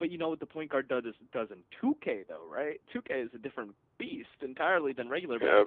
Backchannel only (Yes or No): No